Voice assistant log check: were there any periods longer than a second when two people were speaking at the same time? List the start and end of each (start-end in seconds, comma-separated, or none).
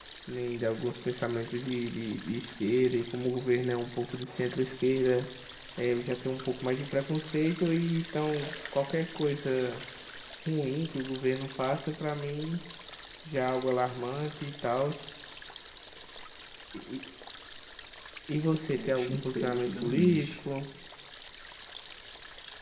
18.8-20.4